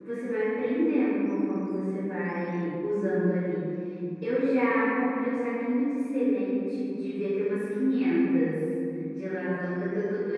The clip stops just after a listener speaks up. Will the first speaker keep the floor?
Yes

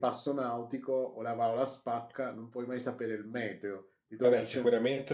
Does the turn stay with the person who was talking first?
No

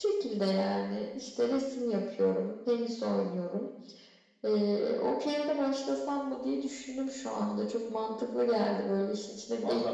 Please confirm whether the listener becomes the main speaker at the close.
Yes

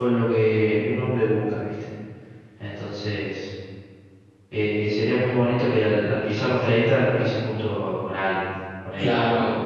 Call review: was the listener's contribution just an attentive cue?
No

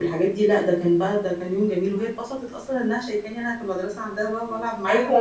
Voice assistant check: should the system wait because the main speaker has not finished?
No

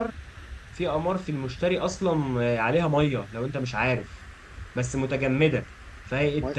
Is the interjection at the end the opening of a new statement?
Yes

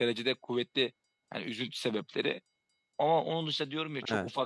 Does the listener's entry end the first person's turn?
No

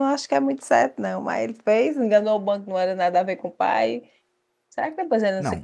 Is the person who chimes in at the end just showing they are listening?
No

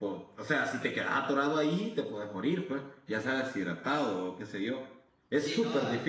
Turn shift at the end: Yes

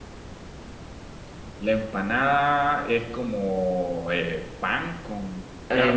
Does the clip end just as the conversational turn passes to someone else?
Yes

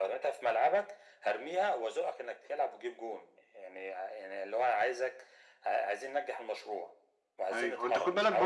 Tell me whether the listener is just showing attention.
No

